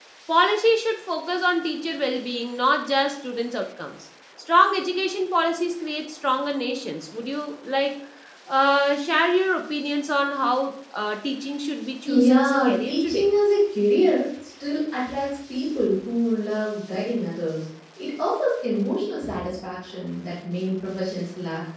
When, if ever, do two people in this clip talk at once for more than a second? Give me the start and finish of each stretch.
12.1-13.3

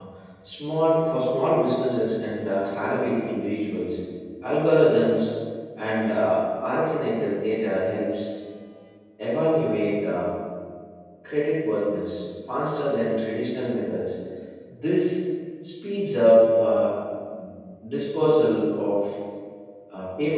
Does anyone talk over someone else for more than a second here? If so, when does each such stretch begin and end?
none

